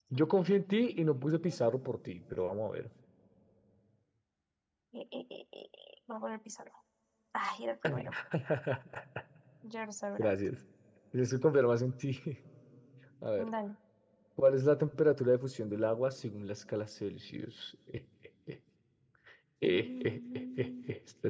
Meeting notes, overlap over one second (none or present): present